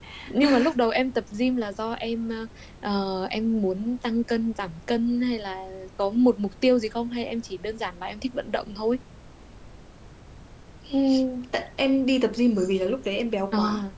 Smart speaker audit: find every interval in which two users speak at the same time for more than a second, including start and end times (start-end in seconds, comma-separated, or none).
none